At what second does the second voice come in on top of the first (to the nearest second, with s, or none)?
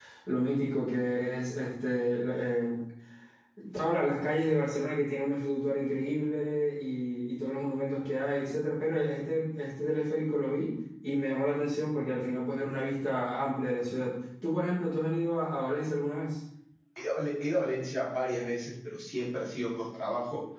none